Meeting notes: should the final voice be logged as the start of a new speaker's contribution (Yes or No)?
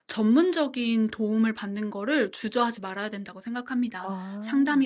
No